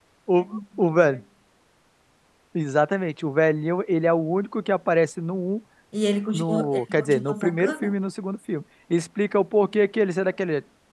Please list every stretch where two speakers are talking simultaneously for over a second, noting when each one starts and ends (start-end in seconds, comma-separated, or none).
6.3-8.0